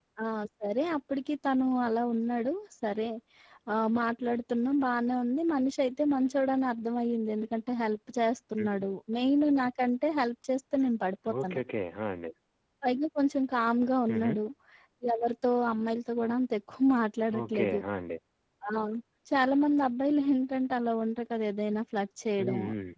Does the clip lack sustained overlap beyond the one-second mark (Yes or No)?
Yes